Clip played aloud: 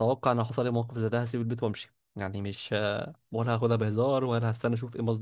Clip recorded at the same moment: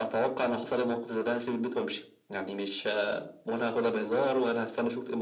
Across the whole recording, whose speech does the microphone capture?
echo only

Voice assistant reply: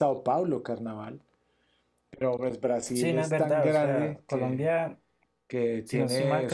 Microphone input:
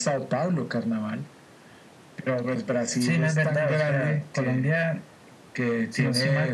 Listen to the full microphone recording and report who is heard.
echo only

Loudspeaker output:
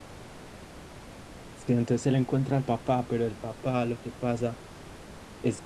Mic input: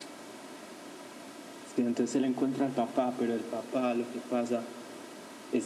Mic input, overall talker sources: echo only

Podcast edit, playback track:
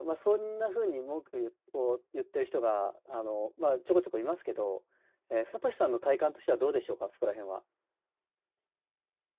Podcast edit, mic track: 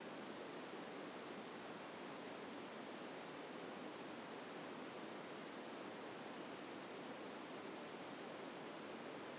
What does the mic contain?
neither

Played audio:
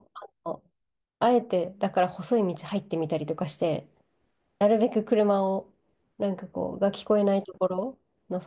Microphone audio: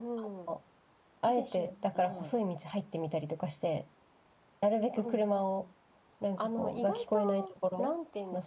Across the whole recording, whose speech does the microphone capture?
both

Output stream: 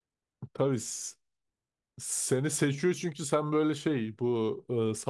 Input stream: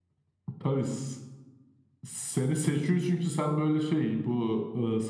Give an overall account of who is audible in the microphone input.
echo only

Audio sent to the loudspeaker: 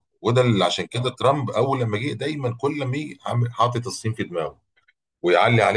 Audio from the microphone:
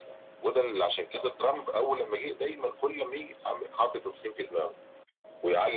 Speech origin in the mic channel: echo only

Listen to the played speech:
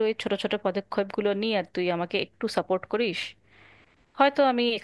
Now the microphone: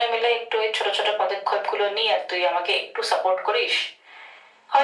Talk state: echo only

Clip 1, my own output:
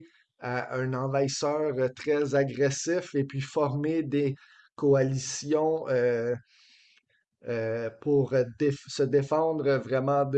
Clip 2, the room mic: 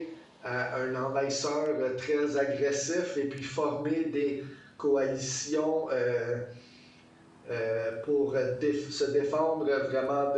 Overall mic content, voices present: echo only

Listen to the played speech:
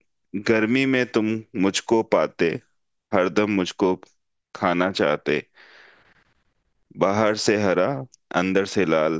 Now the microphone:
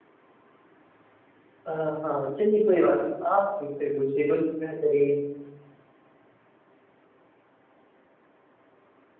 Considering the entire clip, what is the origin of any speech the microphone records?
user only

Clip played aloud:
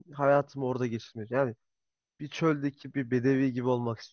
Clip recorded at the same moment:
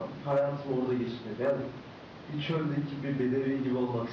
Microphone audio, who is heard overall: echo only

